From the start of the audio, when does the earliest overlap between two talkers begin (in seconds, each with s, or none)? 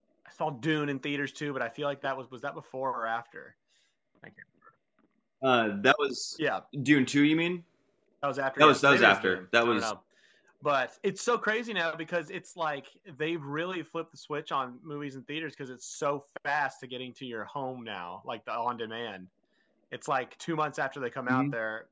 8.6 s